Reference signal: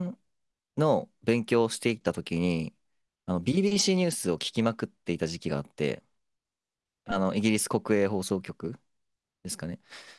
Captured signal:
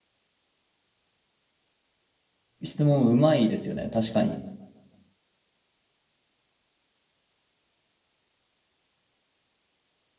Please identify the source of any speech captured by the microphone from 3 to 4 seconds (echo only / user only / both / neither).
user only